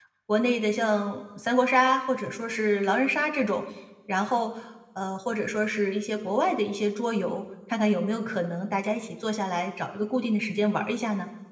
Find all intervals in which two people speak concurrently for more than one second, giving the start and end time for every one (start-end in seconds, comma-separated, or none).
none